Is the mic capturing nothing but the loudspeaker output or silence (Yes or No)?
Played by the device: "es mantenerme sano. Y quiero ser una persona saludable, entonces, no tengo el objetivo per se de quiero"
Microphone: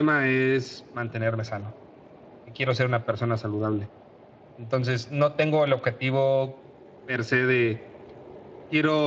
Yes